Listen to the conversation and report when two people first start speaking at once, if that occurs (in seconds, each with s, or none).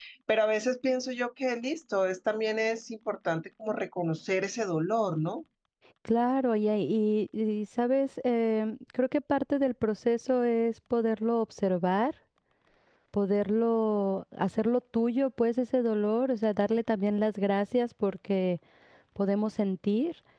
none